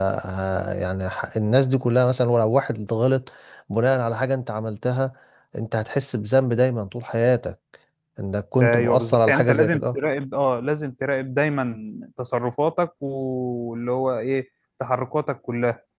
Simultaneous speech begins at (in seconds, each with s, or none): 8.6 s